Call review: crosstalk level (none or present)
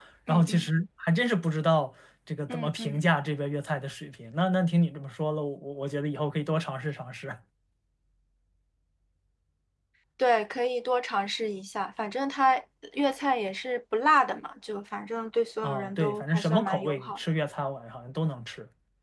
present